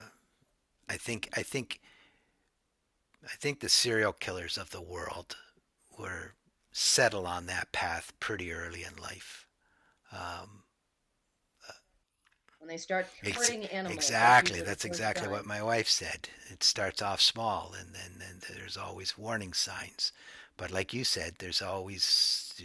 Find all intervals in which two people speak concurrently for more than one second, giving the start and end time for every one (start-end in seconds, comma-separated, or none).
13.3-15.5